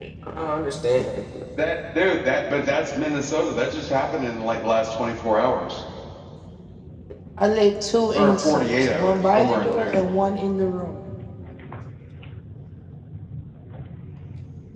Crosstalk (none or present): present